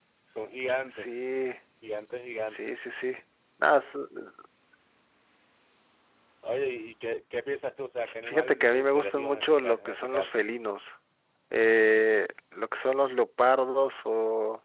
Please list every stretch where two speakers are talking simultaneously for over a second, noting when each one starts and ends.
8.2-10.4

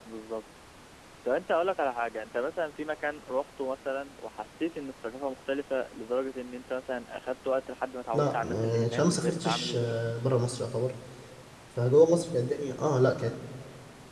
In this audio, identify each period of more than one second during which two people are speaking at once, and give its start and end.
8.1-9.7

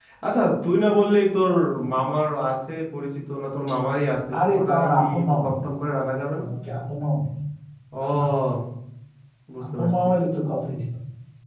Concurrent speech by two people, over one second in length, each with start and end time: 4.3-5.6

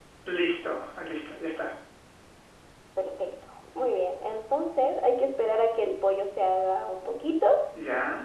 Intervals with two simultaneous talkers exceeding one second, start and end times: none

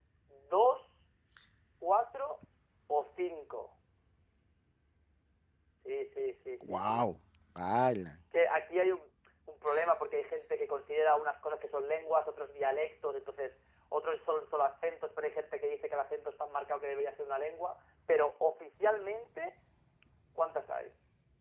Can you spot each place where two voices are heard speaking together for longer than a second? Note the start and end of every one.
none

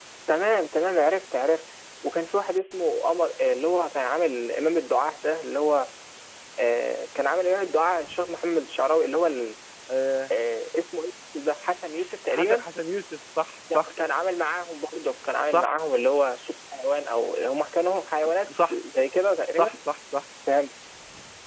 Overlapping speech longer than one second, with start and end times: none

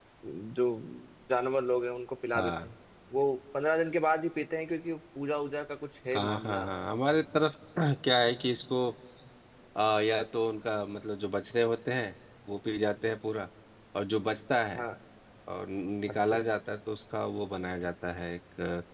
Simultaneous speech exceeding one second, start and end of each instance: none

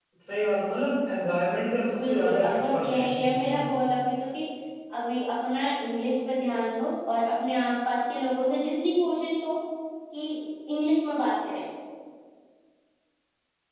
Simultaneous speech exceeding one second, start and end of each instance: 2.0-3.6

